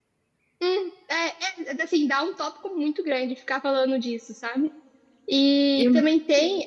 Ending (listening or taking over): listening